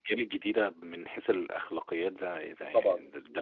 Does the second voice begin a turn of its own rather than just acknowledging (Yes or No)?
Yes